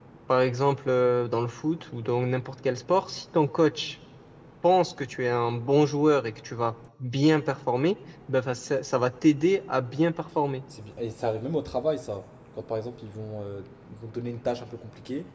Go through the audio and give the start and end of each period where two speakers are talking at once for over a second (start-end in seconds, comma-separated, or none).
none